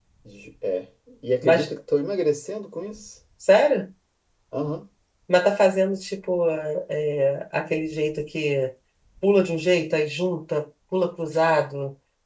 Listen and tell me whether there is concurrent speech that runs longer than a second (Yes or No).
No